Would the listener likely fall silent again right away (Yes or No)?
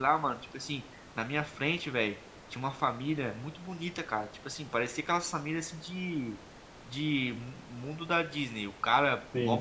Yes